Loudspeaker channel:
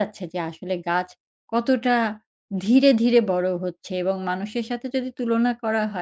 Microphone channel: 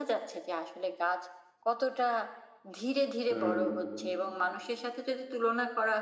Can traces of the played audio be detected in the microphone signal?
Yes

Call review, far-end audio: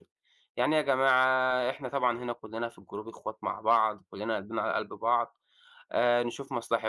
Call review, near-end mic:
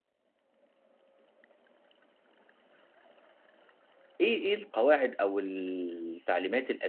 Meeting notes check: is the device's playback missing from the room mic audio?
Yes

